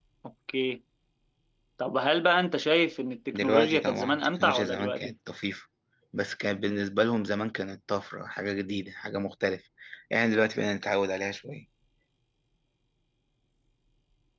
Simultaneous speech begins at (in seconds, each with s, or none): 3.3 s